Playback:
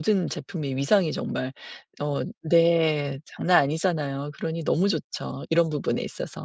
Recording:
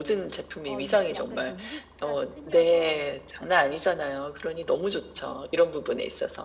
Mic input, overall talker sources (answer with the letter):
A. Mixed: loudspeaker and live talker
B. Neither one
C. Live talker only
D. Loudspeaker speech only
A